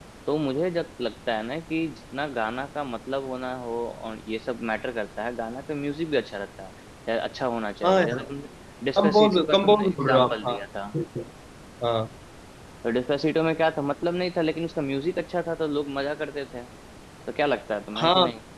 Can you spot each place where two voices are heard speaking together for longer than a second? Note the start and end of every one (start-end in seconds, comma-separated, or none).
9.0-10.6